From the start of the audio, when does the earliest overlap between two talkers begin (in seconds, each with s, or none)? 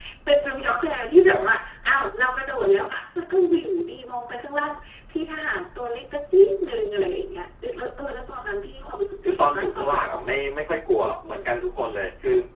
9.2 s